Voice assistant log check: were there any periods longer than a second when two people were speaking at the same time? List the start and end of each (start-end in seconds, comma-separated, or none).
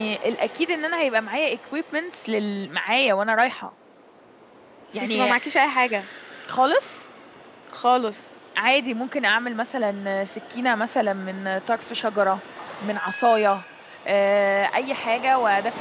none